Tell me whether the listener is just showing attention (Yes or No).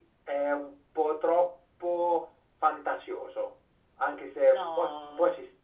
Yes